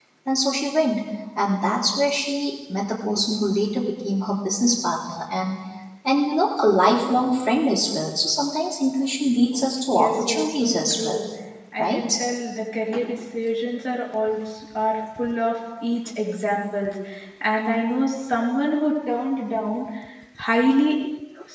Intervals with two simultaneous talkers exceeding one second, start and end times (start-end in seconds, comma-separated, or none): 9.9-11.3